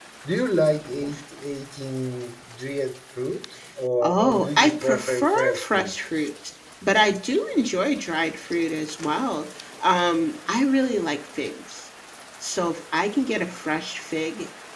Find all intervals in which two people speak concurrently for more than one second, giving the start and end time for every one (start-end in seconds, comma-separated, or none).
4.0-5.9